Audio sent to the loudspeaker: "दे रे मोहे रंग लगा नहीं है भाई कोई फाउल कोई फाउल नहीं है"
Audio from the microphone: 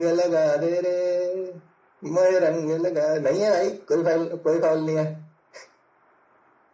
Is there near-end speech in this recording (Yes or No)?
No